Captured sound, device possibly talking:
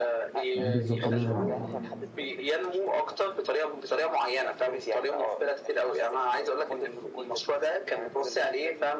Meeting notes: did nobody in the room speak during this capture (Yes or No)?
No